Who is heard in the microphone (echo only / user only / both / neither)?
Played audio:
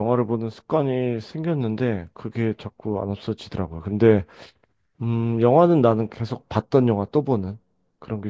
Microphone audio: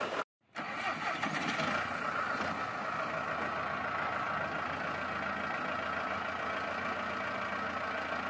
neither